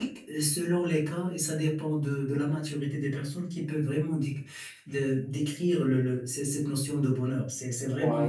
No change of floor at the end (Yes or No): No